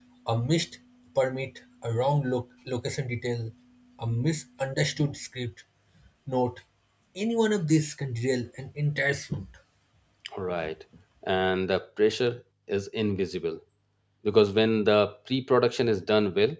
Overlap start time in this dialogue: none

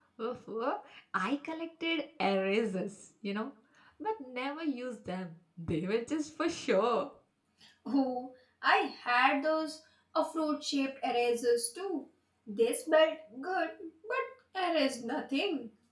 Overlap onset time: none

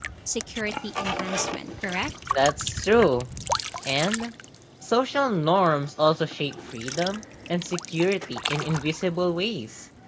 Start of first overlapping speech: none

